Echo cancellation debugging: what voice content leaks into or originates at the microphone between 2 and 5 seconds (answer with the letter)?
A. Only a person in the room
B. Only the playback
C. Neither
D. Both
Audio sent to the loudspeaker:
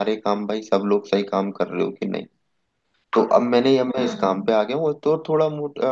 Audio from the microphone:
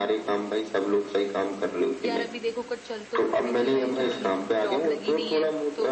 D